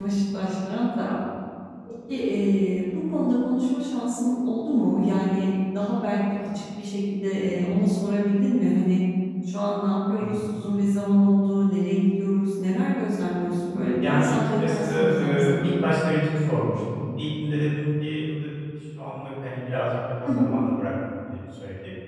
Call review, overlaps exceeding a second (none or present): present